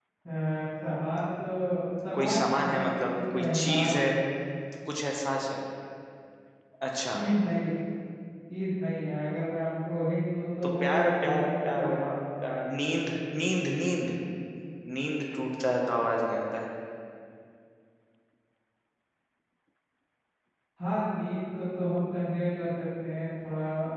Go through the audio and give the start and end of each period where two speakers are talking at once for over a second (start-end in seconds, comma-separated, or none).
2.1-4.1, 10.6-12.1